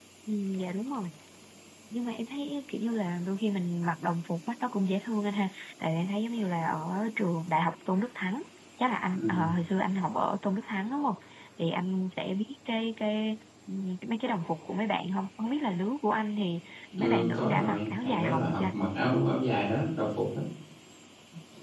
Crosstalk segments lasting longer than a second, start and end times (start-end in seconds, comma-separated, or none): 17.0-18.7